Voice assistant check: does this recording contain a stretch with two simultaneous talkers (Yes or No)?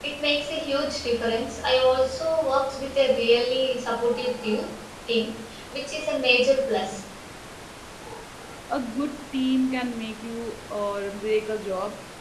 No